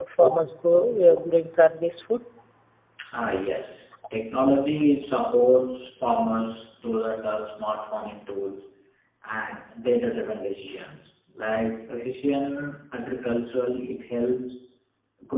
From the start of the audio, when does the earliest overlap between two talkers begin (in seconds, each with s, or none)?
none